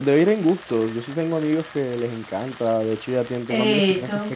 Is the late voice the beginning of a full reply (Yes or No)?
No